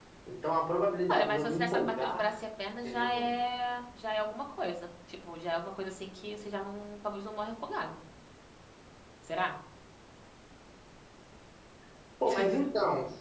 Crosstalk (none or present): present